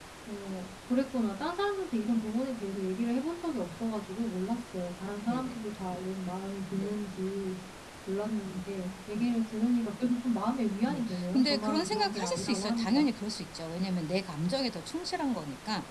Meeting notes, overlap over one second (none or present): present